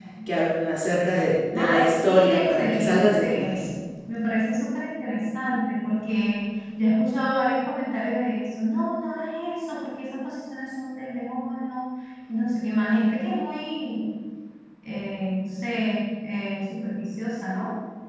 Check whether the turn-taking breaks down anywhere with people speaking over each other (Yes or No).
Yes